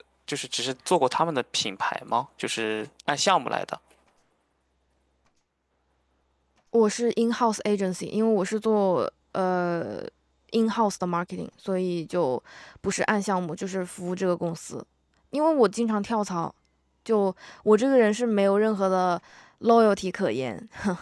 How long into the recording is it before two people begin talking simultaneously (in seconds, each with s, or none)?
none